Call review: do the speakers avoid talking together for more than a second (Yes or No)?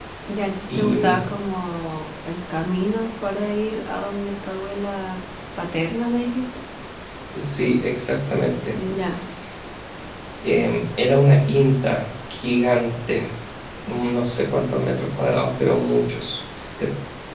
Yes